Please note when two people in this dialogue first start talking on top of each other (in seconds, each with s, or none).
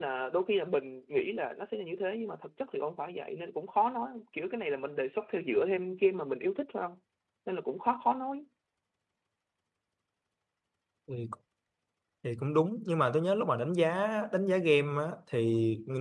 none